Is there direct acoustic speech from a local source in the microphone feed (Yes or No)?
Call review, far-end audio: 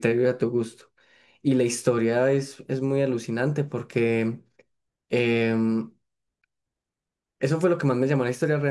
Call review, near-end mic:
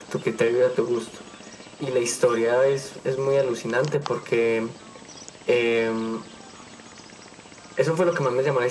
No